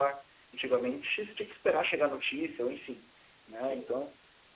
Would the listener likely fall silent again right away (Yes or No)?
Yes